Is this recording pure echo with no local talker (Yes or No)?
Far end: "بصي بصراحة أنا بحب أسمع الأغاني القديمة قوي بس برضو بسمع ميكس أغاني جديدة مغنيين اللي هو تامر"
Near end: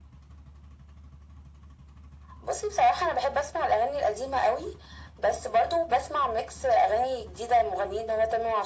Yes